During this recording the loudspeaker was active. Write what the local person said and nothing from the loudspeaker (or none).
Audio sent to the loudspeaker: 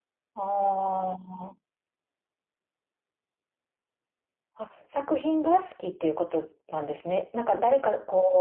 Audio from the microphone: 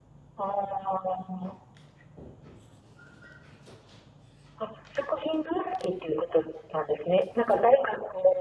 none